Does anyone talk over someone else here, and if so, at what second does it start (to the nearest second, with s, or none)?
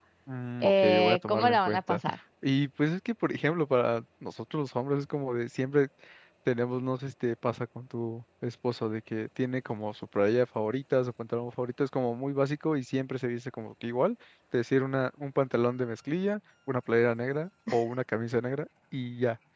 1 s